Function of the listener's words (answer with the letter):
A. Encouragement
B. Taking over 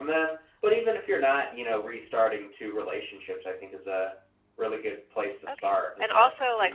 B